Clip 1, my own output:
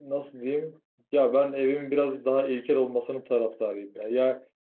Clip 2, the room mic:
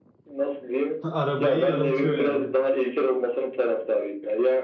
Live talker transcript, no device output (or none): Arabayı yarıltıyor yani.